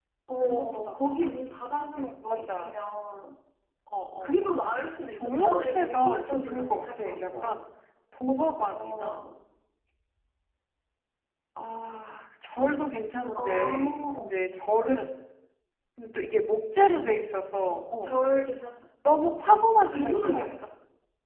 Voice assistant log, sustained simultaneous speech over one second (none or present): present